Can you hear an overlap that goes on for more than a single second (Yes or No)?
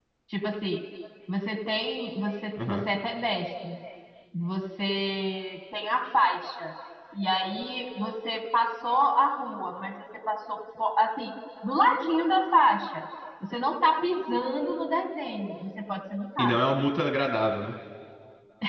No